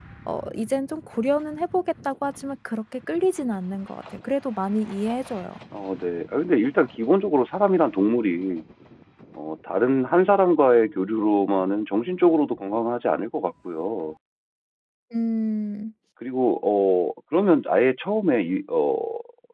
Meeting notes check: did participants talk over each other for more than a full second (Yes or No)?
No